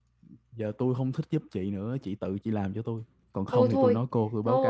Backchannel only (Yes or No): No